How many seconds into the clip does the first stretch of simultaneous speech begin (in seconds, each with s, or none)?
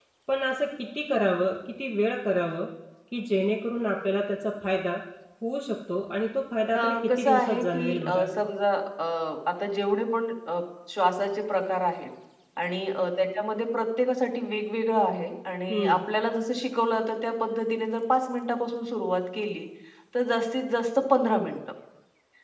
6.8 s